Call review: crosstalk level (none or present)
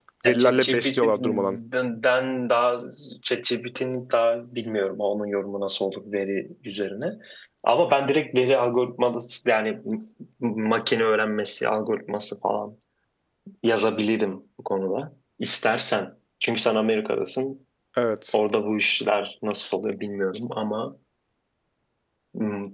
present